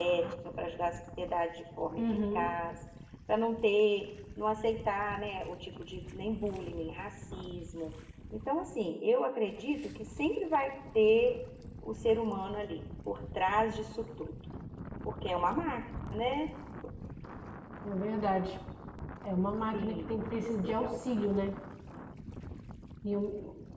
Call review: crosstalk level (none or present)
present